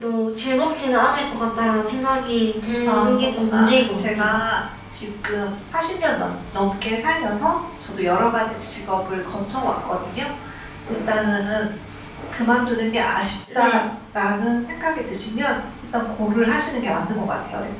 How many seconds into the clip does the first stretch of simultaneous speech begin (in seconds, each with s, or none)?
2.8 s